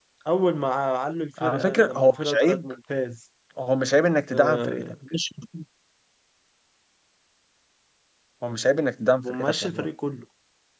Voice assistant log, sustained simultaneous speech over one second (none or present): present